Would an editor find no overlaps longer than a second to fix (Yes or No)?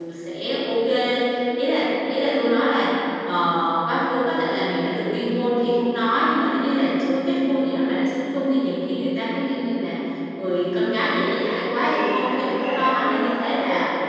No